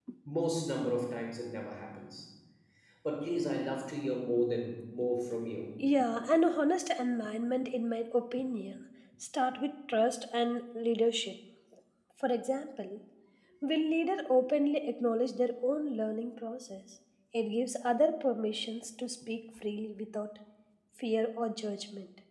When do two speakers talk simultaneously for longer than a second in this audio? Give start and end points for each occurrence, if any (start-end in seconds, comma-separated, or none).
none